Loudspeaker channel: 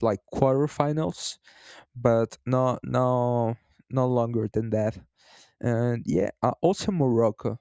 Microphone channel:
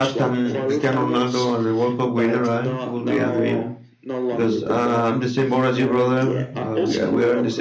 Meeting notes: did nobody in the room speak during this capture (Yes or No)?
No